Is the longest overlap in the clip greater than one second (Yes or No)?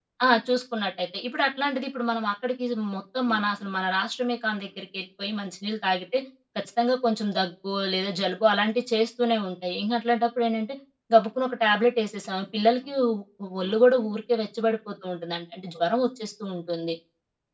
No